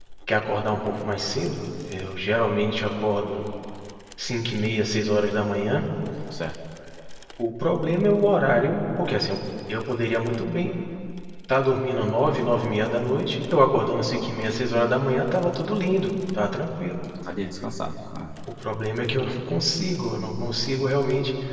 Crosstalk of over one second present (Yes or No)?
No